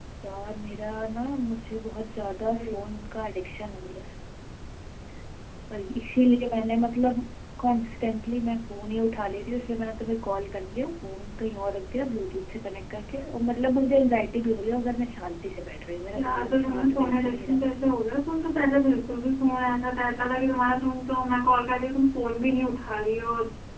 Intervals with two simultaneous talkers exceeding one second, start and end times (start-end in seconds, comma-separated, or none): 16.2-17.6